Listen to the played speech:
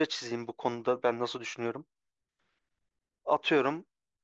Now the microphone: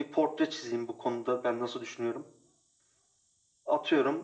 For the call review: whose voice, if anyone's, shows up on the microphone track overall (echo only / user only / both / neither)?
echo only